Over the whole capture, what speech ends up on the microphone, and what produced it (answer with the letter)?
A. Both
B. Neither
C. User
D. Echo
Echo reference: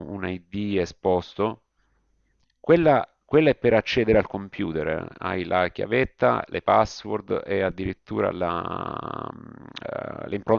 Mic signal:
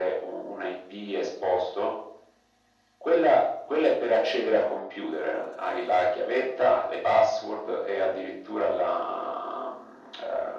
D